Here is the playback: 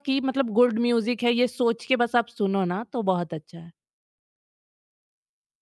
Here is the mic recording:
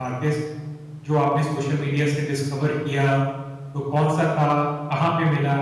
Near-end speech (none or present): present